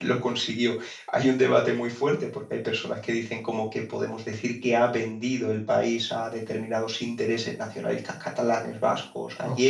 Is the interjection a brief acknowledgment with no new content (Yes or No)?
No